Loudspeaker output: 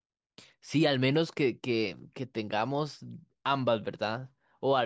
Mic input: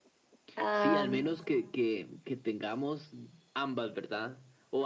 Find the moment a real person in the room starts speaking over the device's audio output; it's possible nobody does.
0.6 s

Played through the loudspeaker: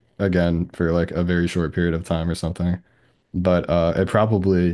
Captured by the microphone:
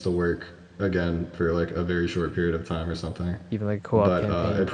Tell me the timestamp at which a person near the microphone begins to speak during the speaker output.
3.5 s

